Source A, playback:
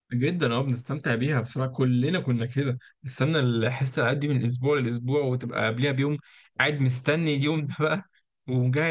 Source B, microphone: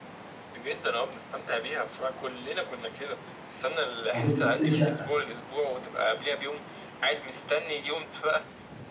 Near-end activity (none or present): present